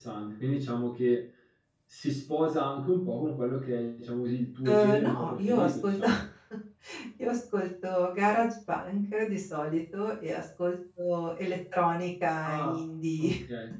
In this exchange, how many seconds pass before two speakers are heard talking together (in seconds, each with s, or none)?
4.7 s